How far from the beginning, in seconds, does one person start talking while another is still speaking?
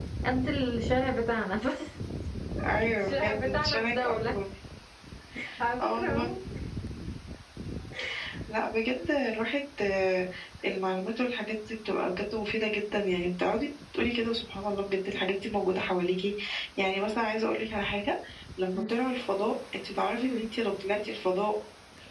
3.0 s

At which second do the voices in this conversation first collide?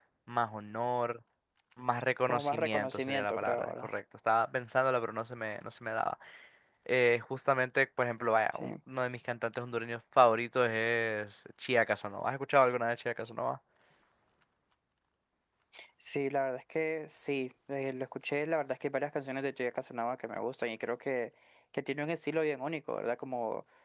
2.3 s

